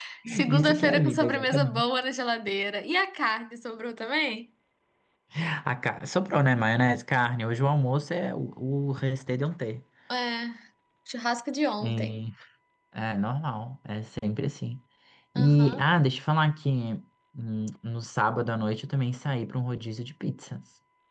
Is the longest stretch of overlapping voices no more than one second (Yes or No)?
No